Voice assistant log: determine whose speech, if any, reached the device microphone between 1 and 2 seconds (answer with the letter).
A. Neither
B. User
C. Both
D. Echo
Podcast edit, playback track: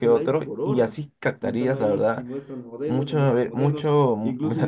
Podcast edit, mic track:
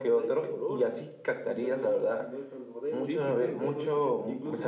D